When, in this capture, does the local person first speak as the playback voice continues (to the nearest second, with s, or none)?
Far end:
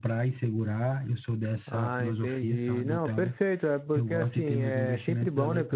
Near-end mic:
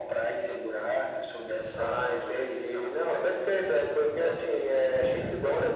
none